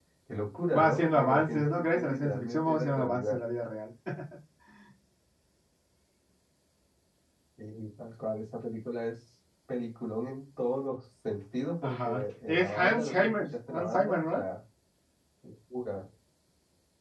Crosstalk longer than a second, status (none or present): present